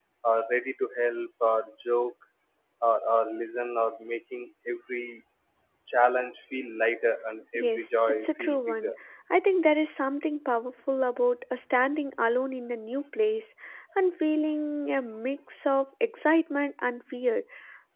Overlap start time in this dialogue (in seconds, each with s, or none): 7.5 s